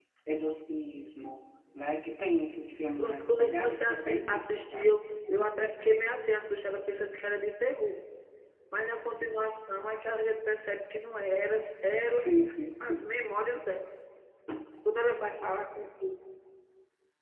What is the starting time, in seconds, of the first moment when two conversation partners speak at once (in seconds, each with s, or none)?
3.0 s